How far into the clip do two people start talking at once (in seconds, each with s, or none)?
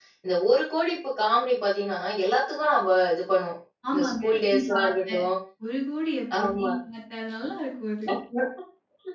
3.9 s